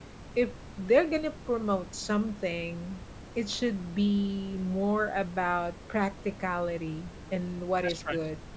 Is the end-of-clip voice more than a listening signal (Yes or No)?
No